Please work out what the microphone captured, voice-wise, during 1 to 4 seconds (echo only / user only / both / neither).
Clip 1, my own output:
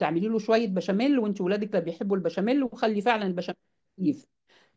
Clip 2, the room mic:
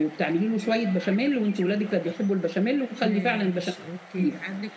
both